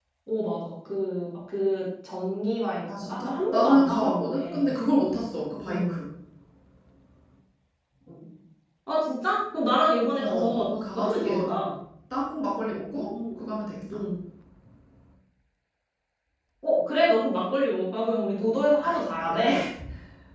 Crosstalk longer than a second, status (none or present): present